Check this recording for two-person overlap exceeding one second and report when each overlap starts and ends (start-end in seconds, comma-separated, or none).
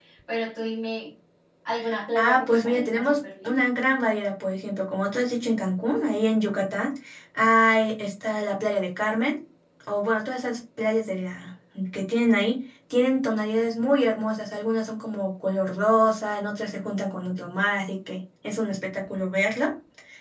2.2-3.7